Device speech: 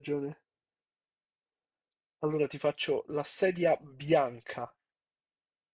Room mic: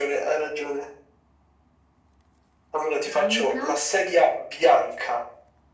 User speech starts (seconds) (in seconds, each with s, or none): 3.0 s